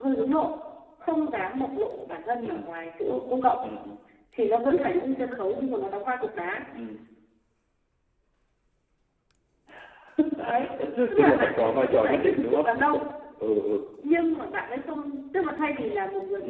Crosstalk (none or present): present